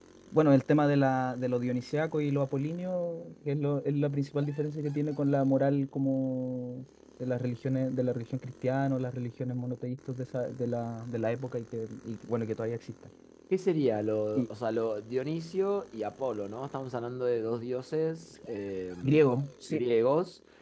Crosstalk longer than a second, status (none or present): none